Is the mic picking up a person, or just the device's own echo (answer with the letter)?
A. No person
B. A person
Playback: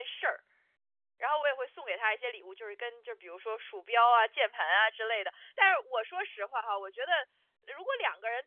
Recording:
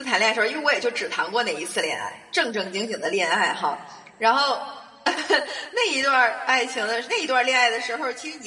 B